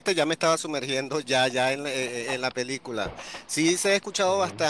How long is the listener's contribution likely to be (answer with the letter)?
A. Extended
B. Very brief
B